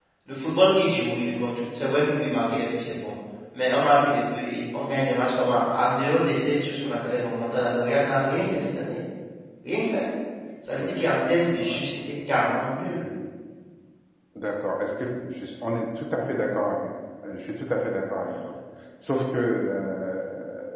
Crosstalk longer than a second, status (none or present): none